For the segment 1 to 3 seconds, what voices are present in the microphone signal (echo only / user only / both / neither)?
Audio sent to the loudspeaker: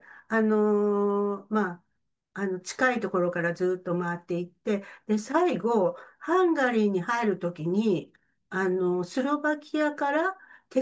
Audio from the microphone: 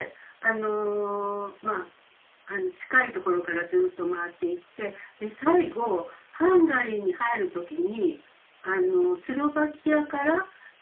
echo only